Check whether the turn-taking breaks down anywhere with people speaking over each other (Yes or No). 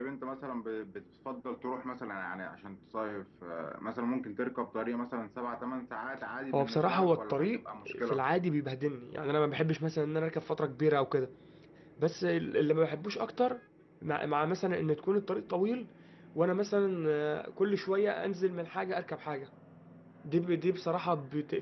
Yes